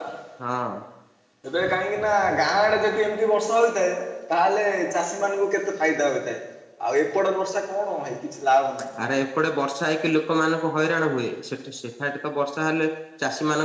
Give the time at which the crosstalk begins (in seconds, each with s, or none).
none